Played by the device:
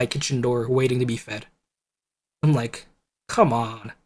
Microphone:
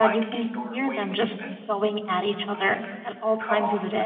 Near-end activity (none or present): present